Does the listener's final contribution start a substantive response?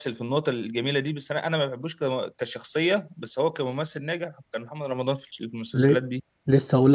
Yes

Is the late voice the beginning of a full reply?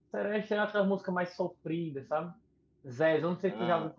No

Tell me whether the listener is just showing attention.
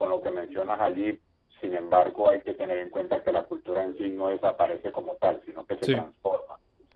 Yes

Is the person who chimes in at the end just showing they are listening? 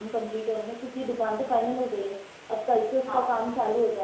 Yes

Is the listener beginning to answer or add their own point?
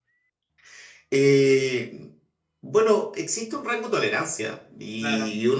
No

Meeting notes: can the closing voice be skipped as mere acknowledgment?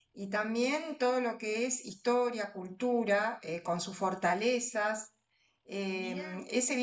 Yes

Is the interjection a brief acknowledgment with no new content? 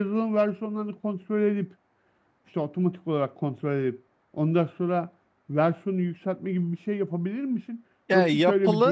Yes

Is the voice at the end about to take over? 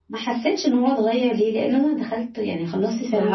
Yes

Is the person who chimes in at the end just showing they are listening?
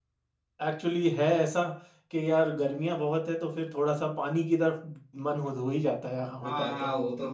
No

